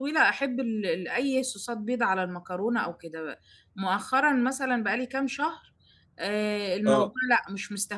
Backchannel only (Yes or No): Yes